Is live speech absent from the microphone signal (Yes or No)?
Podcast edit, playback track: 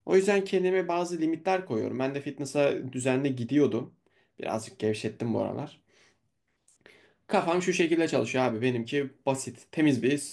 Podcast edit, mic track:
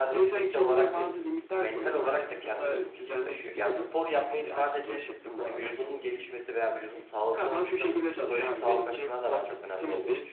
No